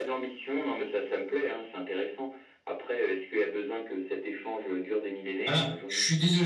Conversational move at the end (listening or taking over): taking over